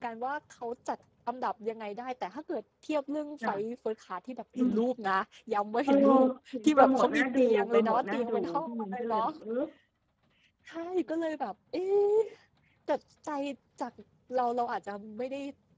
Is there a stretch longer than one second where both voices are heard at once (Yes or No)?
Yes